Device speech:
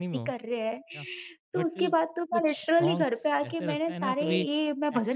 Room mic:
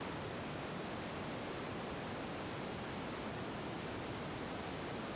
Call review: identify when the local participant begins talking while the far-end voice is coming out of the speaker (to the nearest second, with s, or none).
none